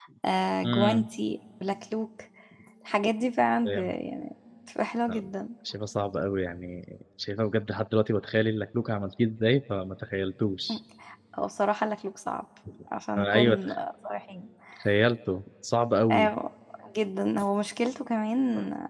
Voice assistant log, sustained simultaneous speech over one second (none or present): none